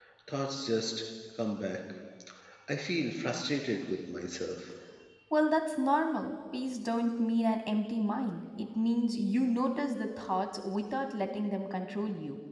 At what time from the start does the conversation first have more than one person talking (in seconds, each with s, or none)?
none